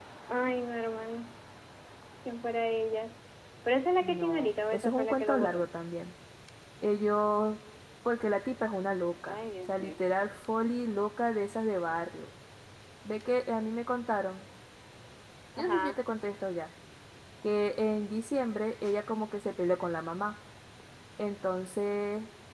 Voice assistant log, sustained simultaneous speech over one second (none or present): present